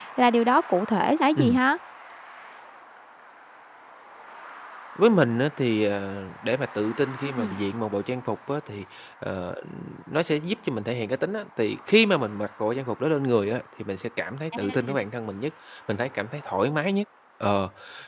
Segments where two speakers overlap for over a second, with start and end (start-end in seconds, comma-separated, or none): none